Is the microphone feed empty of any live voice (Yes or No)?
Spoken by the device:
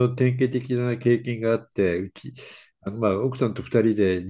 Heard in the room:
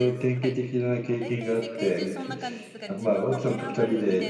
No